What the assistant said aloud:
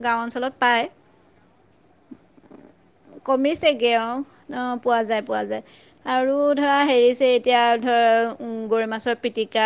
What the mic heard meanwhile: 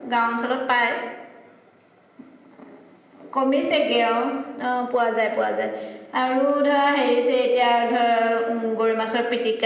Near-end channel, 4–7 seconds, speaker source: echo only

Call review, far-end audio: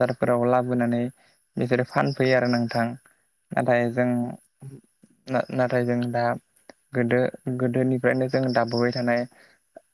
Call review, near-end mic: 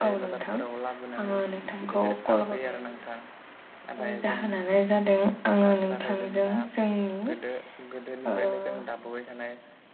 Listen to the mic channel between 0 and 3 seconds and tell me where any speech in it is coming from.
both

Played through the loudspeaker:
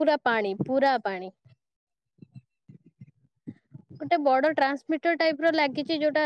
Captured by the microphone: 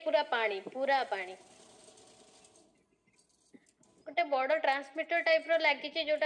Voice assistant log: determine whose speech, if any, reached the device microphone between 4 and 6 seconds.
echo only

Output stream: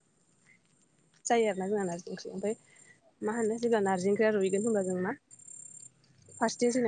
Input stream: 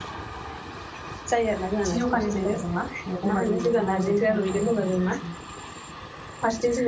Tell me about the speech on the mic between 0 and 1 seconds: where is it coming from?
neither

